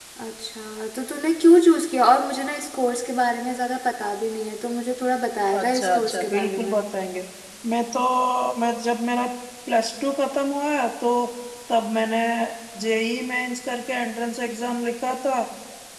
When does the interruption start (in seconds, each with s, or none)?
5.5 s